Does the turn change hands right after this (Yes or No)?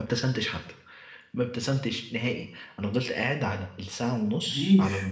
No